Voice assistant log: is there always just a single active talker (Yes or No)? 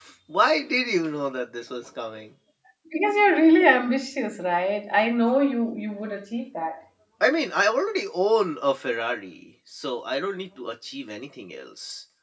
Yes